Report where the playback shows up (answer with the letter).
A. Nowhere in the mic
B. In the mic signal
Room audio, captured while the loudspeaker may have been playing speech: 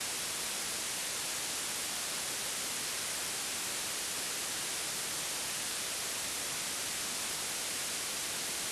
A